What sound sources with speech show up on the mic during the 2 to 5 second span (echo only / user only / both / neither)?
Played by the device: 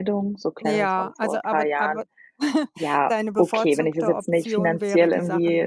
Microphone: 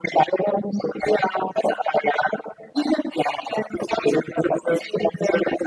echo only